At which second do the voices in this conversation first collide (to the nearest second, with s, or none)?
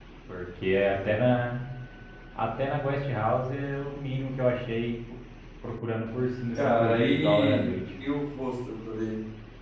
7 s